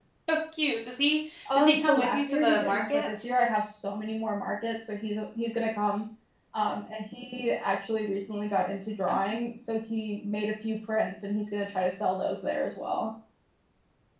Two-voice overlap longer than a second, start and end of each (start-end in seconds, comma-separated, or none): 1.5-3.3